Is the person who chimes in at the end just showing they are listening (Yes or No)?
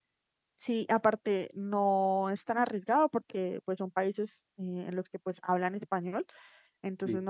Yes